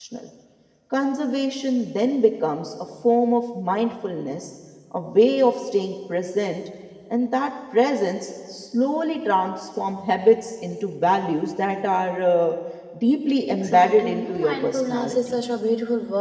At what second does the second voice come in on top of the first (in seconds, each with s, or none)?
13.5 s